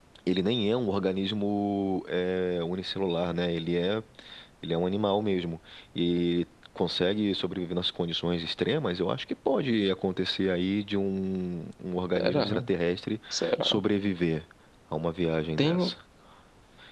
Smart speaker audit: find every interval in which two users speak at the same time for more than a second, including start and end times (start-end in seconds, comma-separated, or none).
none